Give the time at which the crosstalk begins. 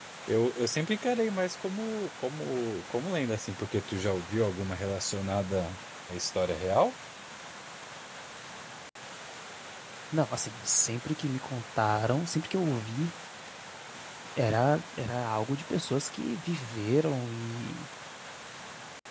none

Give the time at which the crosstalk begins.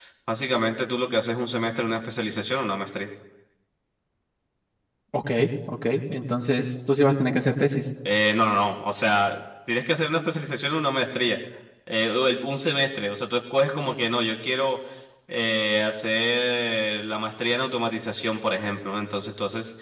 none

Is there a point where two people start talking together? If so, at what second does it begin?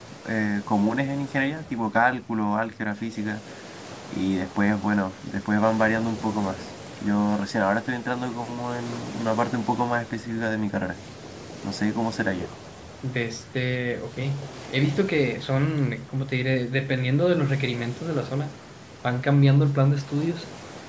none

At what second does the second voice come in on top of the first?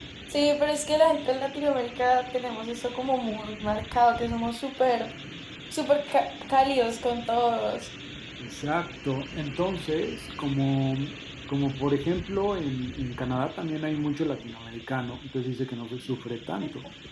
none

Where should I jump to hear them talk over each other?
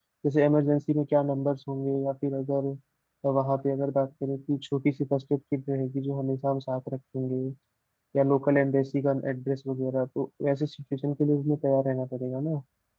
none

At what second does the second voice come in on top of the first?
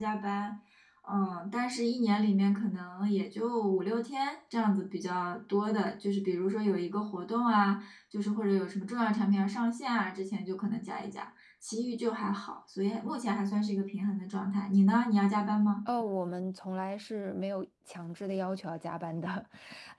none

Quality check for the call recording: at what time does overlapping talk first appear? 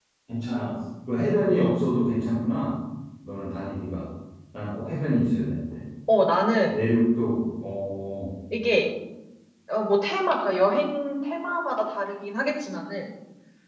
none

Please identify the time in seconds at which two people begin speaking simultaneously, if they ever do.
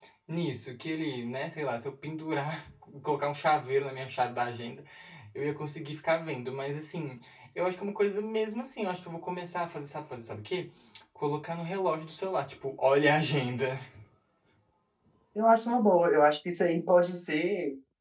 none

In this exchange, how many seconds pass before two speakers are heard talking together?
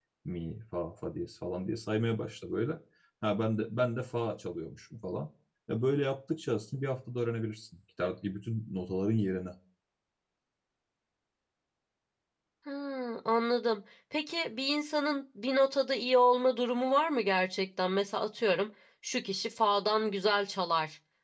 none

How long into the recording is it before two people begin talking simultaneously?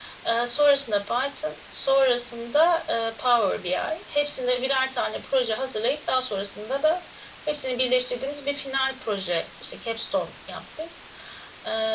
none

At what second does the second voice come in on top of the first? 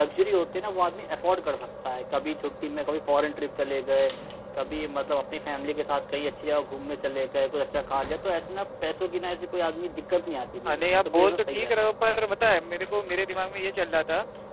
11 s

